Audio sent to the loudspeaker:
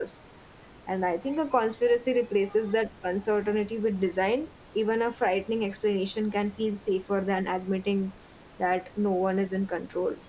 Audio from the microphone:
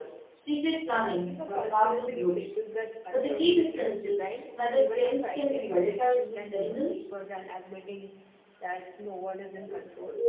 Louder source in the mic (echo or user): user